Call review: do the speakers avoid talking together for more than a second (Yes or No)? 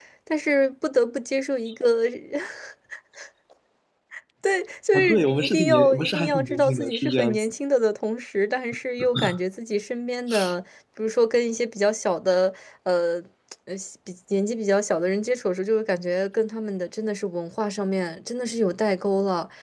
No